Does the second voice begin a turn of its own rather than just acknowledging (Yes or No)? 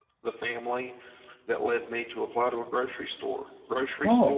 No